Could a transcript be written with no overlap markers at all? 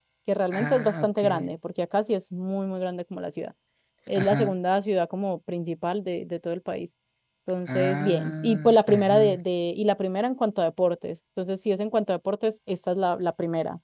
No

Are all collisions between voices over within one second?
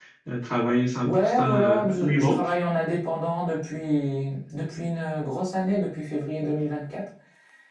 No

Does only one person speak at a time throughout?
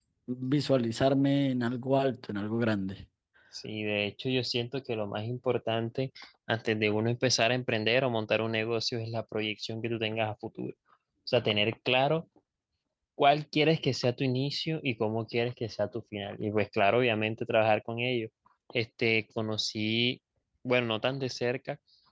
Yes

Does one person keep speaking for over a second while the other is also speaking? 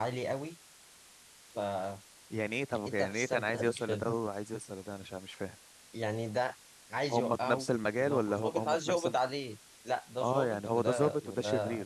Yes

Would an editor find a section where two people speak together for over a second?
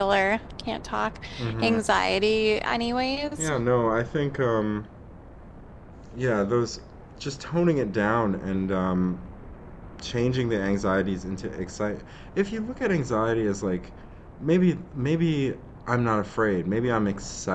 No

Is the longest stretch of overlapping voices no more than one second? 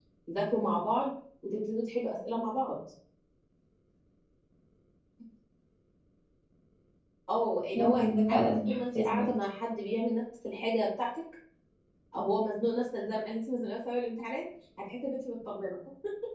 No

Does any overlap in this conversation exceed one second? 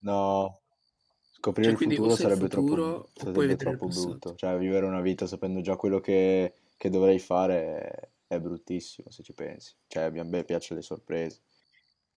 Yes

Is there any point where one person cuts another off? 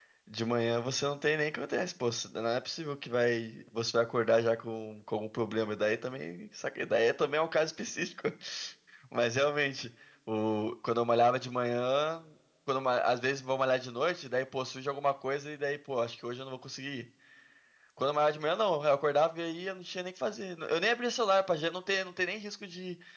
No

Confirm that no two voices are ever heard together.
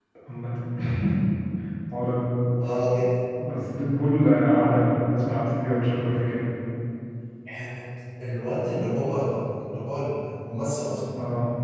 Yes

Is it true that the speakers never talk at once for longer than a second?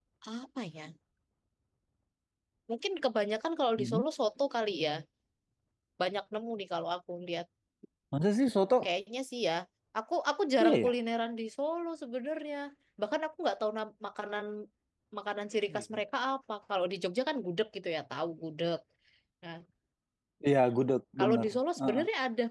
Yes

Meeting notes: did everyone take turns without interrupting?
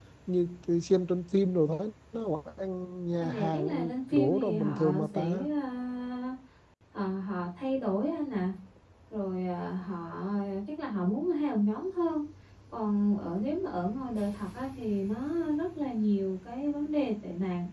No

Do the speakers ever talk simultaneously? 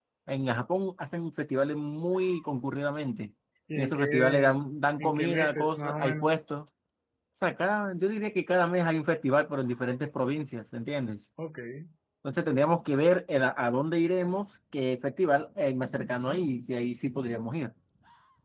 Yes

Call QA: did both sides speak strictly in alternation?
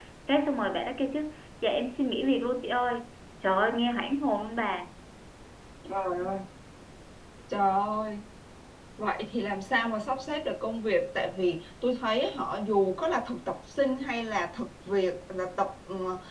Yes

